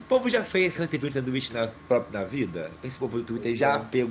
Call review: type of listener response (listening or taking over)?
listening